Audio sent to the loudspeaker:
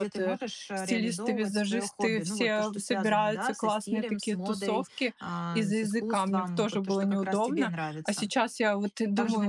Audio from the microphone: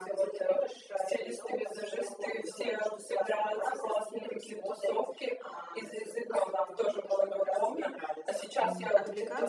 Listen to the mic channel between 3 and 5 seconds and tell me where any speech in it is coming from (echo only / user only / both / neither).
echo only